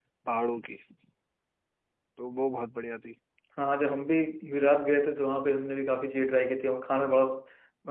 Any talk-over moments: No

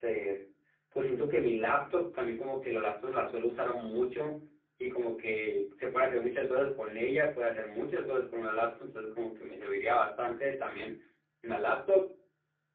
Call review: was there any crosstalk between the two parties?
No

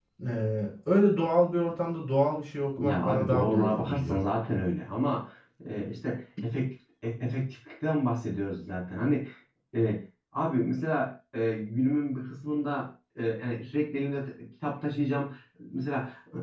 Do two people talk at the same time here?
Yes, from 2.8 s

